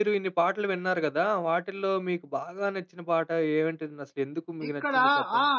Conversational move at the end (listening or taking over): taking over